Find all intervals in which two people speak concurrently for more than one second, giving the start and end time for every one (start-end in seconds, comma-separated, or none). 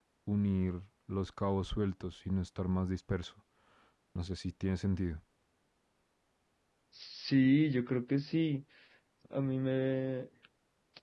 none